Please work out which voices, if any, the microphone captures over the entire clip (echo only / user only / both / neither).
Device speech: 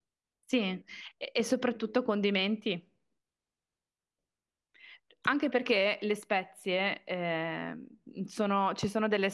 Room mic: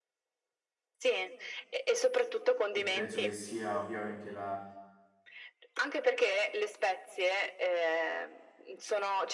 both